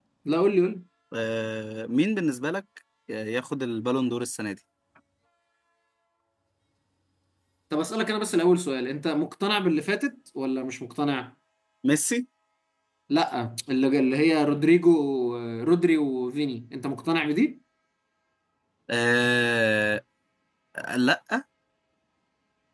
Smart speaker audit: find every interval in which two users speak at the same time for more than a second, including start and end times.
none

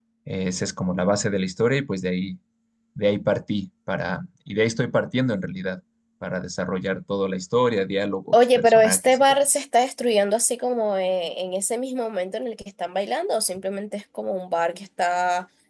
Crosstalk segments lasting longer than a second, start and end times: 8.3-9.6

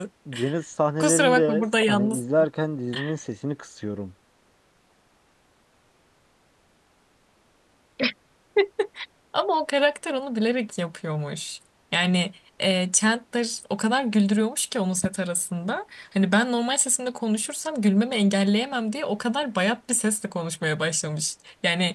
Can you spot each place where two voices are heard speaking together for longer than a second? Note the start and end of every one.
1.0-2.2

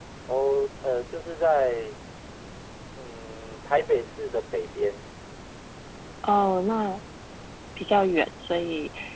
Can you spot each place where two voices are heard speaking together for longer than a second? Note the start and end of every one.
none

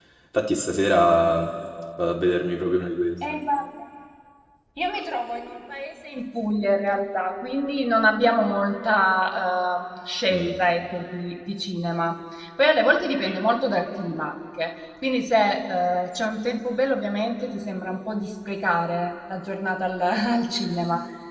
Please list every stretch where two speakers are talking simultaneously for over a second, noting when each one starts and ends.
none

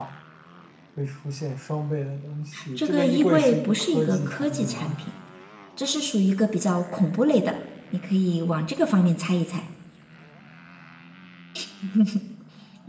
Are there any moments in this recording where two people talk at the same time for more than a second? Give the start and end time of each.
2.8-5.0

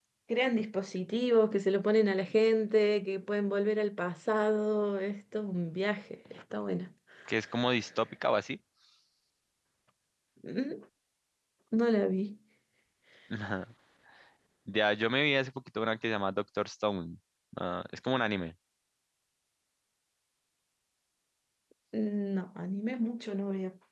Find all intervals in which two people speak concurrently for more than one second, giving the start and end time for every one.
none

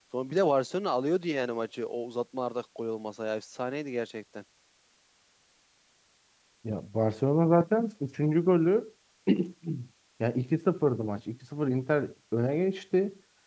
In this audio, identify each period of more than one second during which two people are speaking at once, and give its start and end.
none

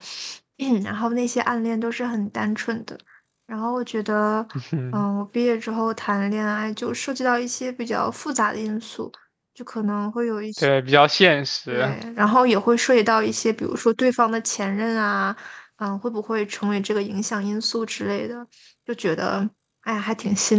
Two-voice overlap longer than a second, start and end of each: none

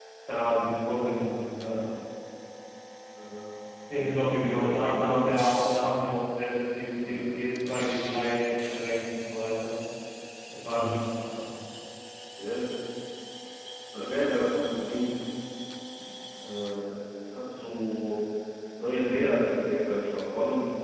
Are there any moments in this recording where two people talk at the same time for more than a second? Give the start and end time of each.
4.0-5.3

